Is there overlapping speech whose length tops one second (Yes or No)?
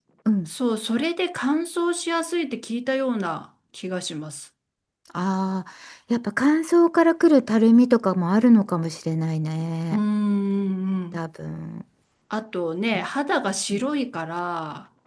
No